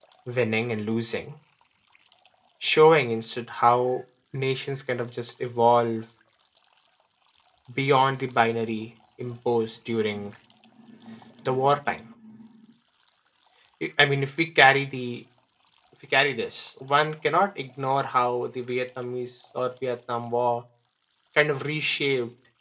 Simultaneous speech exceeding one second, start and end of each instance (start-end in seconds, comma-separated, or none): none